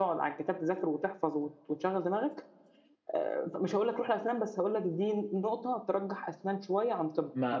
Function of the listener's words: taking over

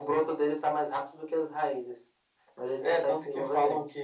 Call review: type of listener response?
taking over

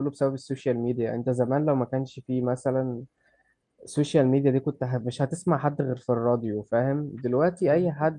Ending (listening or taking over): listening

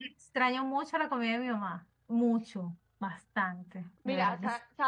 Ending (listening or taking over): taking over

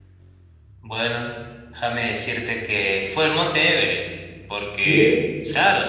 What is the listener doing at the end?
listening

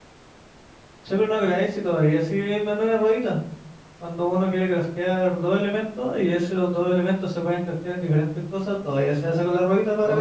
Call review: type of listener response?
taking over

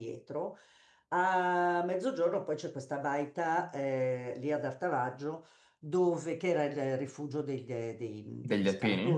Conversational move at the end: listening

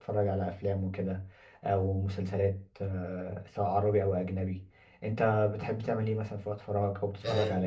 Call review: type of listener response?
taking over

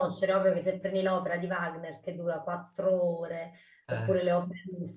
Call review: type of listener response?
listening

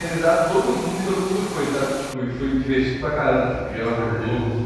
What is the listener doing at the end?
listening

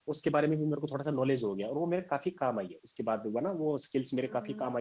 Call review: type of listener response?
taking over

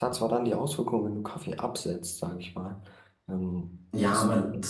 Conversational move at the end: taking over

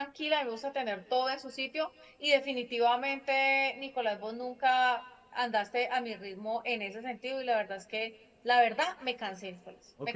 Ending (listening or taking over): taking over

